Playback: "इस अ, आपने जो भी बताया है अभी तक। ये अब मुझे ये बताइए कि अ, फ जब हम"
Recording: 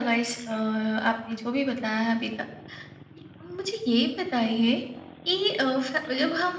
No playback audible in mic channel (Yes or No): No